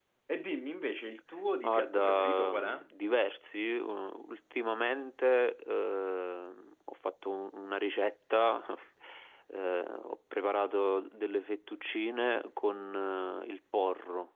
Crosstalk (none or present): present